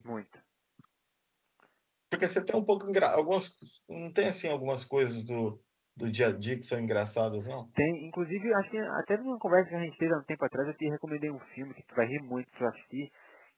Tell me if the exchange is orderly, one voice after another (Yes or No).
Yes